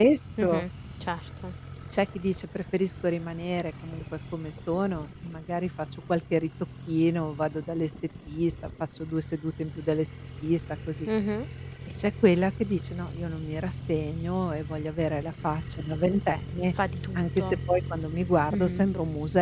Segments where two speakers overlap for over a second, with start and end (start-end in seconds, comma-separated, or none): none